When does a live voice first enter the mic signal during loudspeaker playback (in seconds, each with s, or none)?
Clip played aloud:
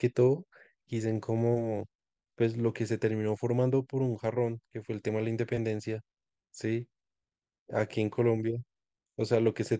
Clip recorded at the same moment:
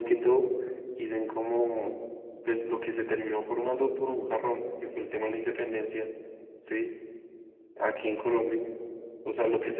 none